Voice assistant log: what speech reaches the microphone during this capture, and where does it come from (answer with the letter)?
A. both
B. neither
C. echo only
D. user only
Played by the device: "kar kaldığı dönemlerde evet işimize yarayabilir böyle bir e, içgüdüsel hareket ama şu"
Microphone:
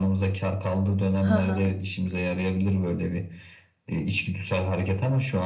A